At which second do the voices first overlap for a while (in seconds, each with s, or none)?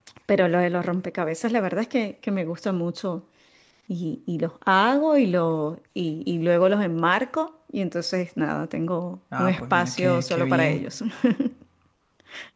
9.3 s